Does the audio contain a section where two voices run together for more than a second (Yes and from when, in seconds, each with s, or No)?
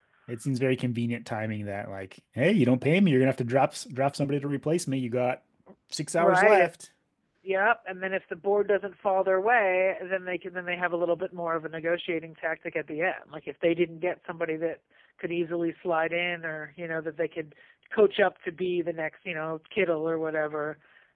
No